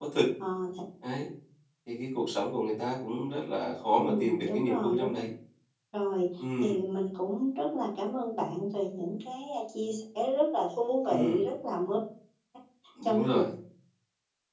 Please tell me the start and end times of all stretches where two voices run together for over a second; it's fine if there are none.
4.0-5.2

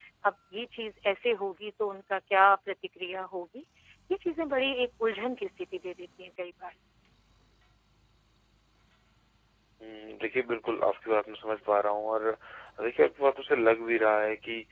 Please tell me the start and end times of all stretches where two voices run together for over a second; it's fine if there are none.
none

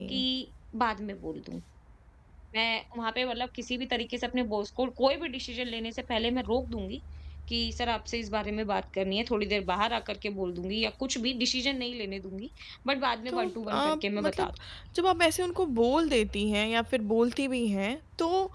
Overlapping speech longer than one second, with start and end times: 13.3-14.5

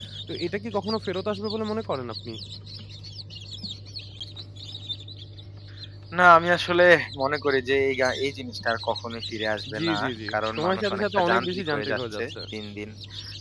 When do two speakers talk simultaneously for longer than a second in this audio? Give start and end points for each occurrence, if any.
9.8-12.2

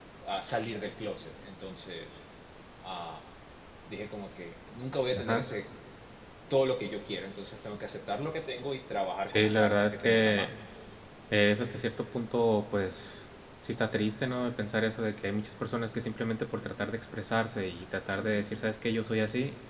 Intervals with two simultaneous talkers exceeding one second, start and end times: 9.2-10.5

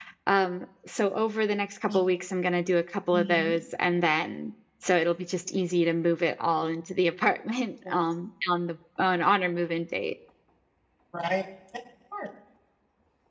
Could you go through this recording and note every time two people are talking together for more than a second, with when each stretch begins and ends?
none

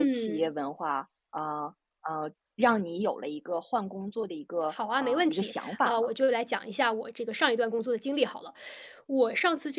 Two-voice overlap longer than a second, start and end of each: 4.7-6.1

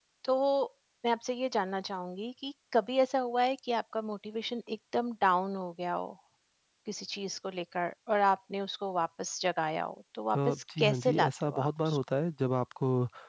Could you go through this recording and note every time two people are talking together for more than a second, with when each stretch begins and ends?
10.3-12.0

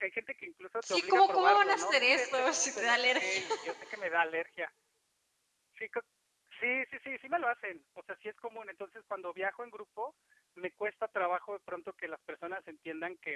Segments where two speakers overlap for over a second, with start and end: 0.9-3.4

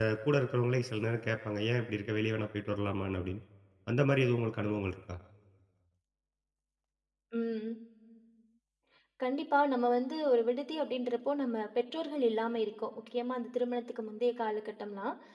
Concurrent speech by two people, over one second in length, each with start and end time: none

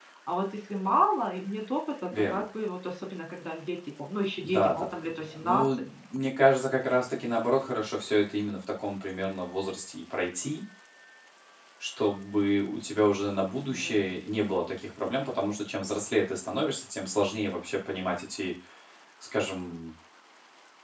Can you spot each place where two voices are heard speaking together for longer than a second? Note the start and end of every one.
4.4-5.8

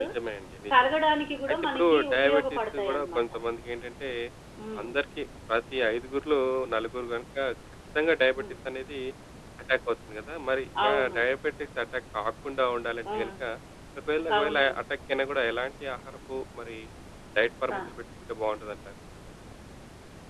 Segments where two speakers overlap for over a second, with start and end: 1.7-3.2

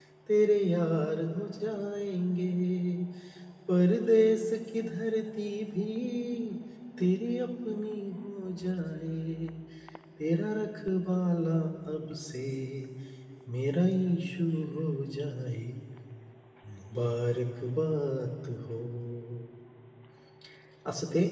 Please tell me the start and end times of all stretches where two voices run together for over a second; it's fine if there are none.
none

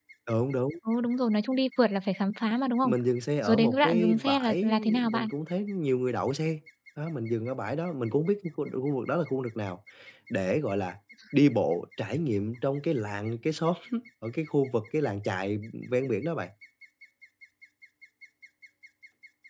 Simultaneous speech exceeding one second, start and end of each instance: 3.4-5.3

